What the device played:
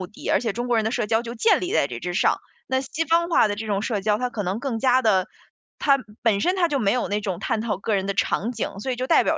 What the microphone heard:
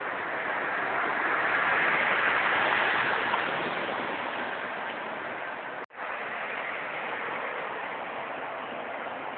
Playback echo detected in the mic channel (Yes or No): No